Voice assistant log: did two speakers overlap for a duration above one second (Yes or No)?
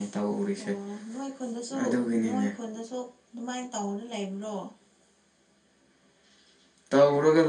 No